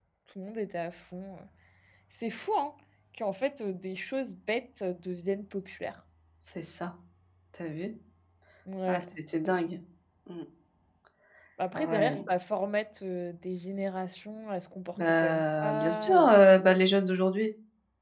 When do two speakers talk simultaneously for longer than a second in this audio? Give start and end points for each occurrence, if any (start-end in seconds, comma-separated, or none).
15.0-16.3